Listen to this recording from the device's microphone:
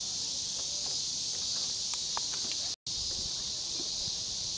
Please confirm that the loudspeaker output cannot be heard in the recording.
Yes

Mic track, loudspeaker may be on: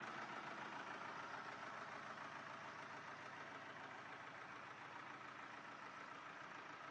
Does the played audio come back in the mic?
No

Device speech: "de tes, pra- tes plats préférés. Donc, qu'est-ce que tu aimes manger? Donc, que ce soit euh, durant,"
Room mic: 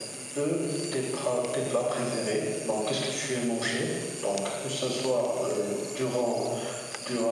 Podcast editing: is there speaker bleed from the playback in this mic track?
Yes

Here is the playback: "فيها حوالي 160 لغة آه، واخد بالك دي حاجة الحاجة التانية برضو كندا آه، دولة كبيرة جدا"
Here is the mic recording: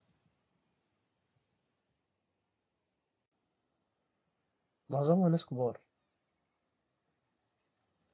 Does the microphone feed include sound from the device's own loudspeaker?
No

